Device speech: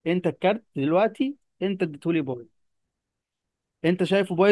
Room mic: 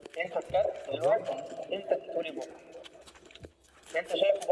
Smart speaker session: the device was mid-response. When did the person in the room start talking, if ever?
1 s

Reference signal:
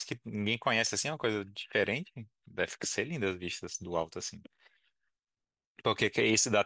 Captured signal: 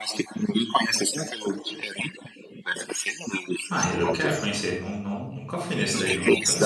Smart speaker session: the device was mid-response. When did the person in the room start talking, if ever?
4 s

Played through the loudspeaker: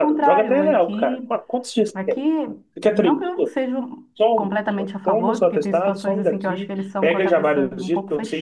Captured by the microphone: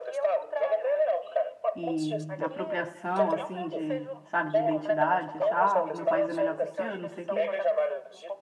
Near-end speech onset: 2 s

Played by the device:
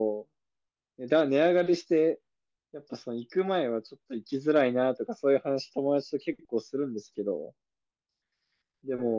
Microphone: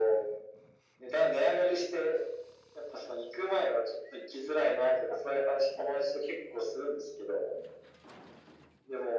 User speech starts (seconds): none

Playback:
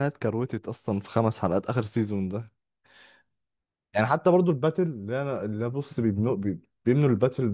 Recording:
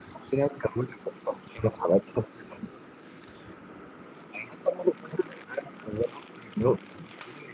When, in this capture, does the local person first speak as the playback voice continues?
none

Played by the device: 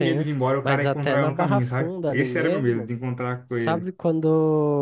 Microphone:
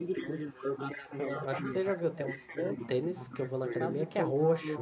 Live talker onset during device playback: 1 s

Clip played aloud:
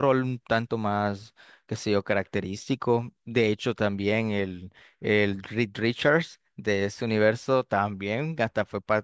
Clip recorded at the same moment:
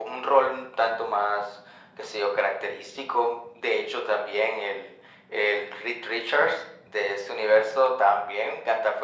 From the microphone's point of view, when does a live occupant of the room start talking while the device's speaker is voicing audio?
none

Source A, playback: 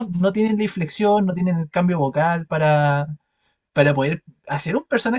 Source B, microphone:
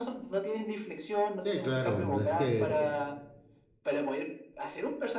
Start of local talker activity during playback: 1 s

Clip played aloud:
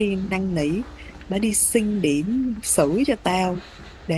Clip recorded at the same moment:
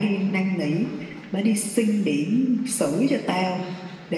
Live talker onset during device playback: none

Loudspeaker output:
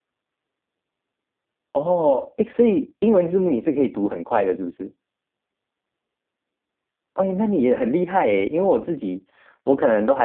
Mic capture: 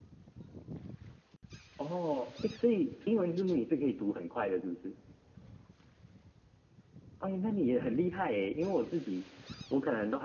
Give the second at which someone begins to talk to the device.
none

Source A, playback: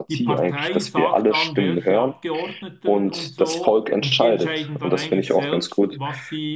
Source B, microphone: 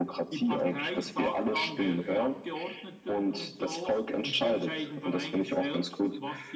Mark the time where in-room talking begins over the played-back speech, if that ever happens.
none

